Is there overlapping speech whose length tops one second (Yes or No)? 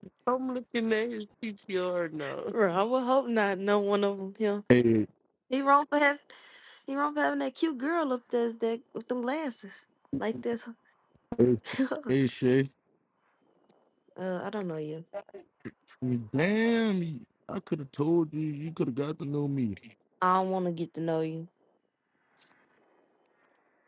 No